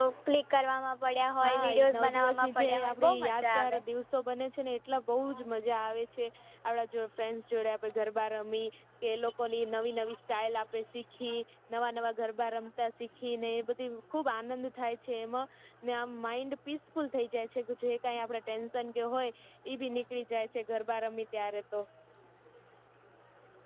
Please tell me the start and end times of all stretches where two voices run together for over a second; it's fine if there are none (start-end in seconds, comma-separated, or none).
1.4-3.8